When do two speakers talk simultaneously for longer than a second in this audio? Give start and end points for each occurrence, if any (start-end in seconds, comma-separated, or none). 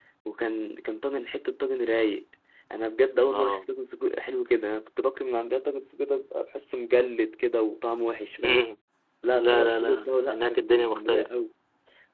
9.3-11.3